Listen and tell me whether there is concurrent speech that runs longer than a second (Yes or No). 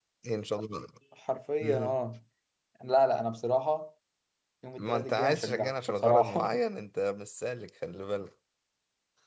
Yes